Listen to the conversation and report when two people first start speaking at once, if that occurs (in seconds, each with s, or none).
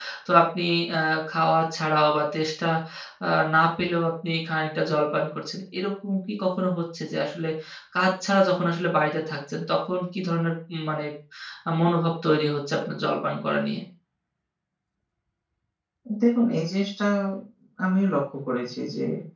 none